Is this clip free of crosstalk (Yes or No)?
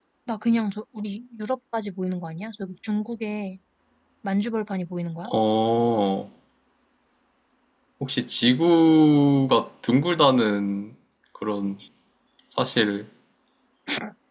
Yes